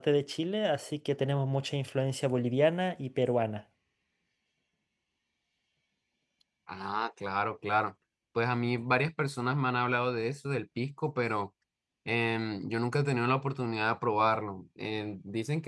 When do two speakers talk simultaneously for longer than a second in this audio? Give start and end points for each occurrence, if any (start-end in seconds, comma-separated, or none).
none